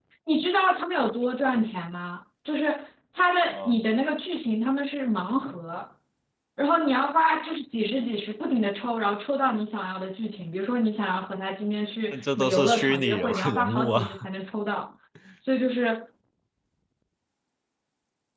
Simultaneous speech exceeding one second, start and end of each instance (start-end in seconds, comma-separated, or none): 12.1-14.1